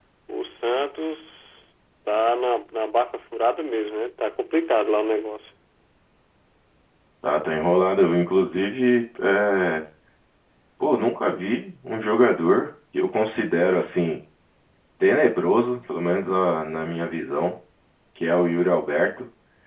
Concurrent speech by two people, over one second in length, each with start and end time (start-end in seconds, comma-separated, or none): none